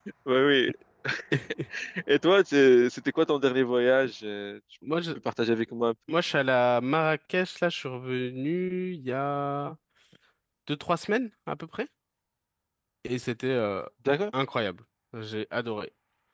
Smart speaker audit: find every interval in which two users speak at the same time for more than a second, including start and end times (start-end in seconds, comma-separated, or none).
none